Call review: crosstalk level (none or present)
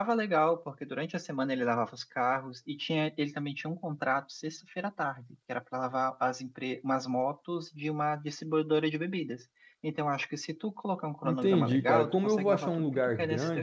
present